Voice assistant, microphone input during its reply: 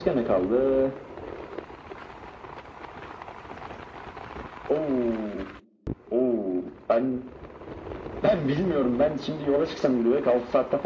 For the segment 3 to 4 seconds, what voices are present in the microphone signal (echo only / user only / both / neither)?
neither